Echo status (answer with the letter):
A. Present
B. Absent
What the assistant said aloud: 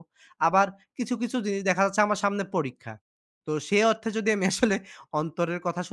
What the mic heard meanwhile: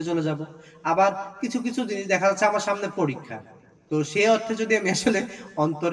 A